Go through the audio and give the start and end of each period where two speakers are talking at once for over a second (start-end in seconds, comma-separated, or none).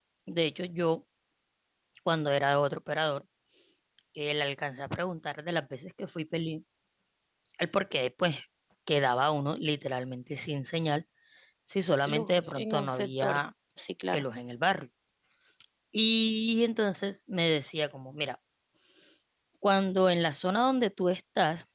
12.1-13.4